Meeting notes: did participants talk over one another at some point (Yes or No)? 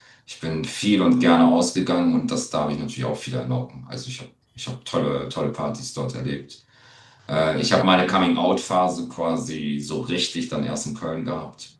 No